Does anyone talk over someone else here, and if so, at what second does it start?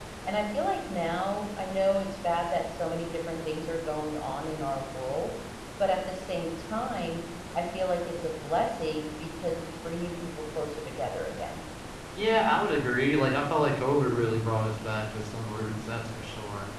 none

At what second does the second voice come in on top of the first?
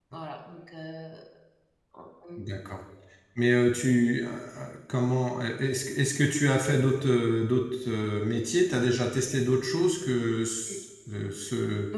none

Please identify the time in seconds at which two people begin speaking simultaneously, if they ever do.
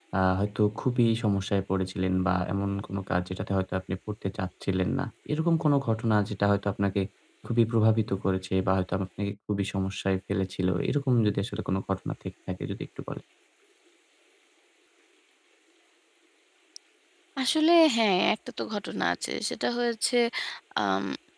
none

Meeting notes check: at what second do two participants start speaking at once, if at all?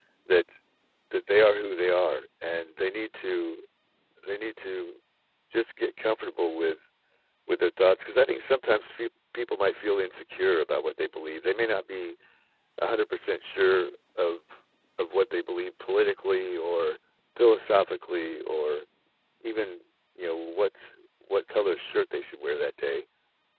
none

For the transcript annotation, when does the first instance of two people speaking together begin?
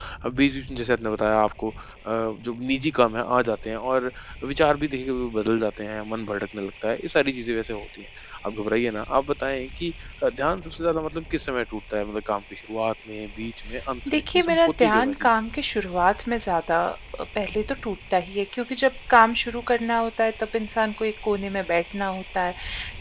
14.1 s

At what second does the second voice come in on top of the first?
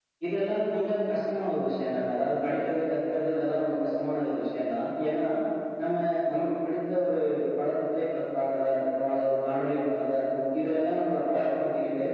none

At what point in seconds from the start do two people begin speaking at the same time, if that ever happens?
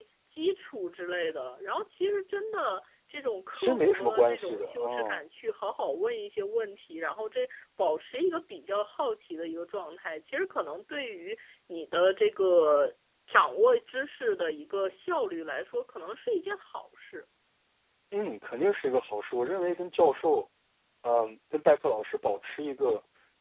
3.5 s

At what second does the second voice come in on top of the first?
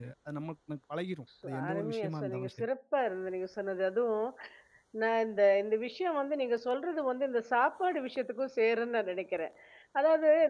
1.4 s

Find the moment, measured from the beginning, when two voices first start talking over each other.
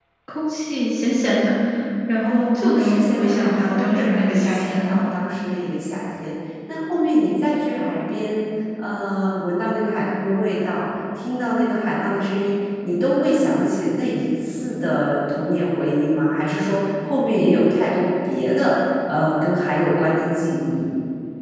2.2 s

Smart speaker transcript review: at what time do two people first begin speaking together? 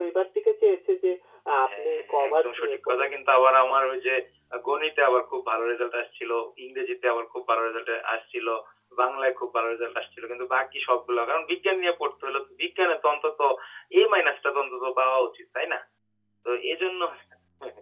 1.7 s

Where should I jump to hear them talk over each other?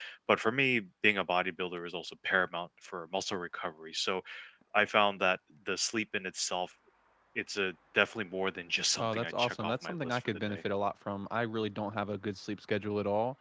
9.0 s

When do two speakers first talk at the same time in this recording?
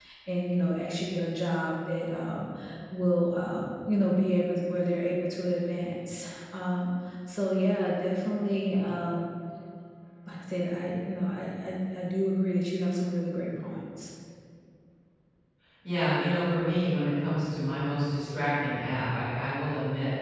none

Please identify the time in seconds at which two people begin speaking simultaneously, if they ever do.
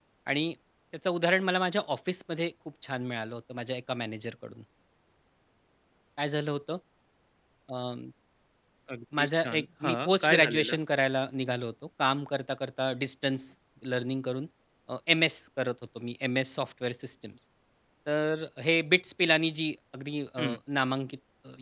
9.2 s

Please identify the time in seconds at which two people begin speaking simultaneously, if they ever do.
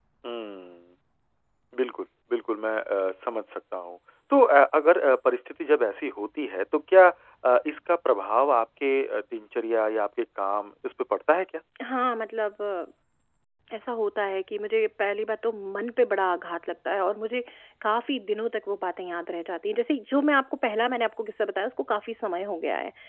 none

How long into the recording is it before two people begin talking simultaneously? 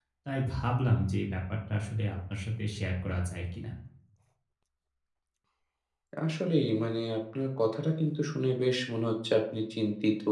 none

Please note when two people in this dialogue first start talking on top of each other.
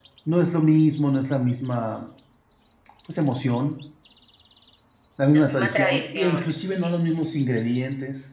5.3 s

